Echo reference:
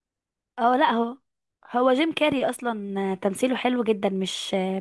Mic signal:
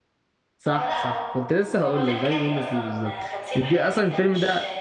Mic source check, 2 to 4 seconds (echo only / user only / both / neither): both